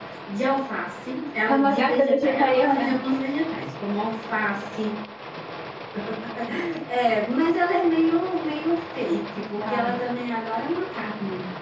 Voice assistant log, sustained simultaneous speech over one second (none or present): present